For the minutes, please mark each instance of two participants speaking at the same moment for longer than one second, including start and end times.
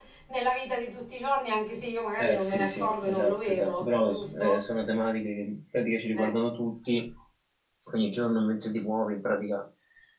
2.2-4.7

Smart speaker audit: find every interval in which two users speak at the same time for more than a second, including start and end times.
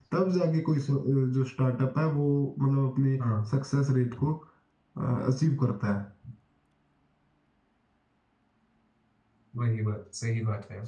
none

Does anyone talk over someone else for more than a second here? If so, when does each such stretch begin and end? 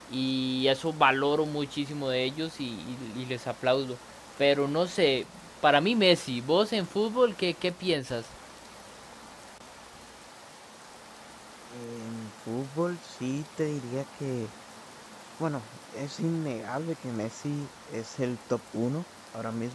none

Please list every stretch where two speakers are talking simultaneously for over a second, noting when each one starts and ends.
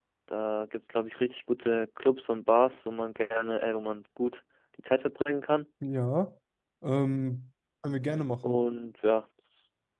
none

